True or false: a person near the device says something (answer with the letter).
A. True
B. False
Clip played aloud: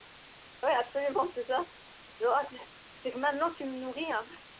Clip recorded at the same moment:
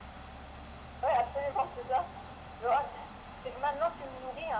B